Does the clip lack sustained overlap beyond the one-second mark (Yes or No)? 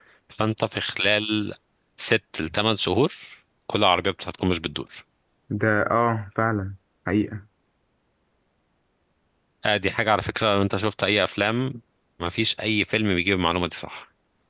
Yes